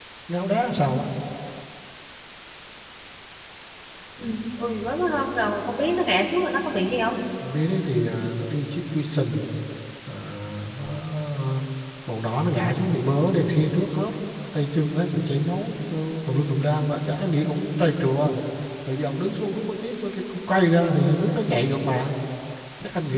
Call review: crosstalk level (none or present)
none